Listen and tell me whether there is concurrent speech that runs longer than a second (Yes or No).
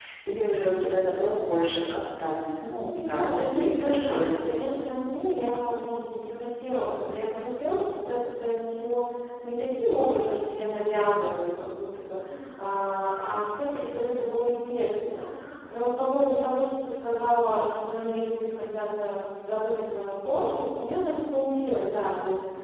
Yes